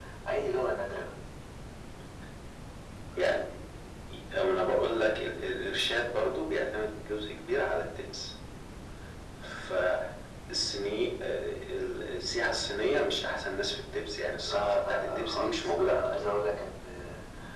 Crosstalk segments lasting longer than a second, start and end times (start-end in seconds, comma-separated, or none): 14.5-16.2